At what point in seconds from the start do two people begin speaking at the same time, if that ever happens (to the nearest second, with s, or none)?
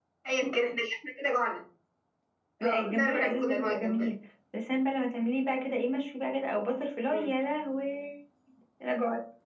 3 s